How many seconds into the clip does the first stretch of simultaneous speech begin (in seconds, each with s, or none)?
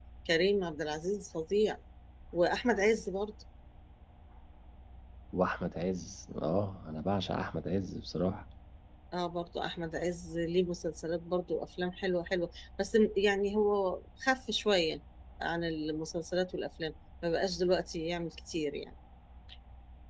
none